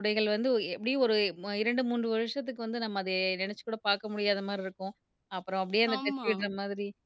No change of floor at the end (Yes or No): Yes